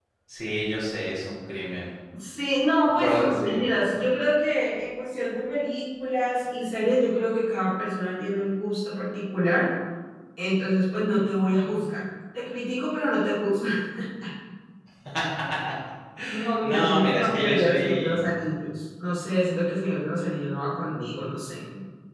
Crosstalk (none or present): present